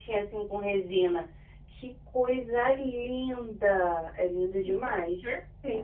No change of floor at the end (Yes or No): No